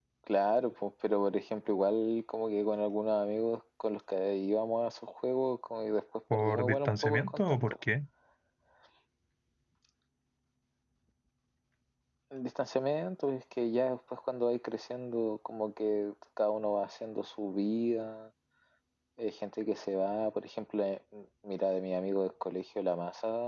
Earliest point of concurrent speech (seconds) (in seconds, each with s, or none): 6.3 s